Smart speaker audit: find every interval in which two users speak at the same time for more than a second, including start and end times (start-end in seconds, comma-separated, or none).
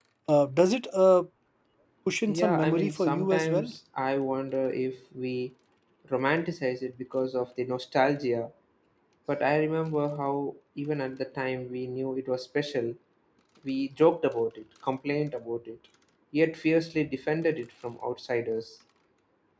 2.3-3.7